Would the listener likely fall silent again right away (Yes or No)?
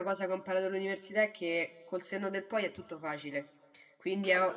Yes